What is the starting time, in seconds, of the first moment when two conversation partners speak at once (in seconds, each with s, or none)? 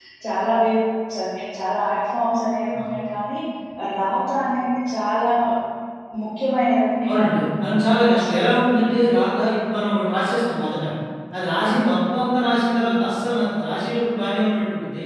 7.1 s